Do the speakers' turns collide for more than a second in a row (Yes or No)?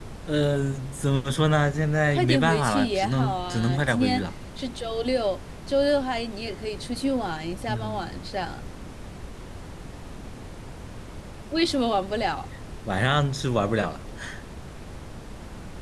Yes